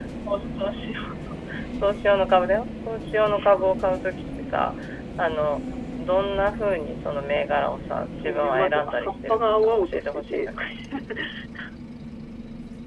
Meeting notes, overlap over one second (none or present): present